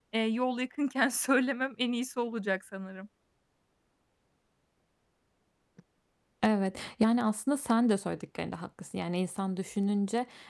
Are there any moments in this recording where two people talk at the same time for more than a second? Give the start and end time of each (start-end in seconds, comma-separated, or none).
none